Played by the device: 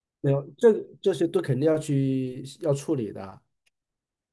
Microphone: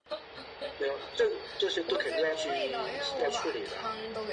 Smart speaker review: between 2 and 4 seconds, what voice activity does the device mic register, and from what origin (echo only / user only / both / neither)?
both